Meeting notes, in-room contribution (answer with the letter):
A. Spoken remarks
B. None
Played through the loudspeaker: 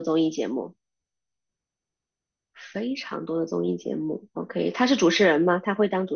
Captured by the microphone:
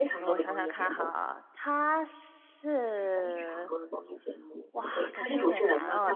A